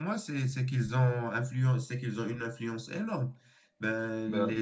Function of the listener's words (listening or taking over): listening